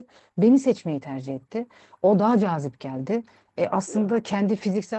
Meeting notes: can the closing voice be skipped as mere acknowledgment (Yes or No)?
Yes